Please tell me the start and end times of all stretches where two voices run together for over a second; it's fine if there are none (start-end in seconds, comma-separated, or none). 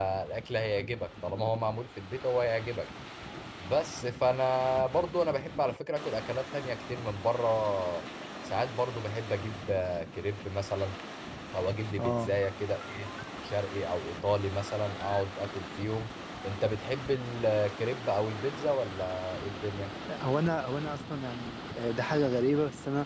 none